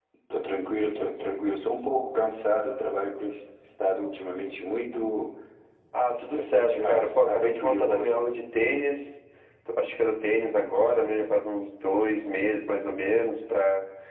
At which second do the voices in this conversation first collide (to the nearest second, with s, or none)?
6 s